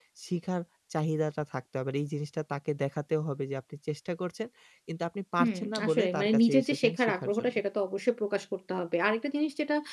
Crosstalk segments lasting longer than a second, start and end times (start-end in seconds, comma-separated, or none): 5.4-7.5